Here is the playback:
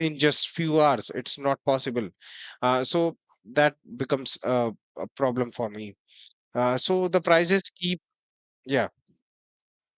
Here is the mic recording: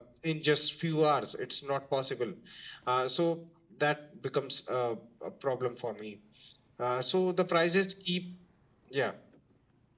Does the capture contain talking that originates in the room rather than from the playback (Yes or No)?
No